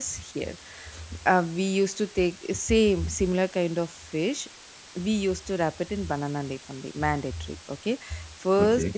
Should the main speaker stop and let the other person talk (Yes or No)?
No